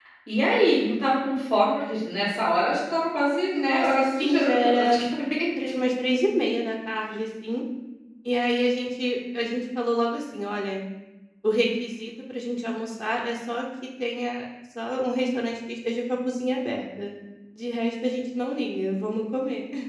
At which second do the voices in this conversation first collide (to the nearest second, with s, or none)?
4 s